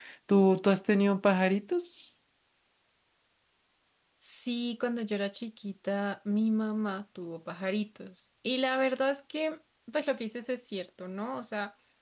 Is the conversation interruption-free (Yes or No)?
Yes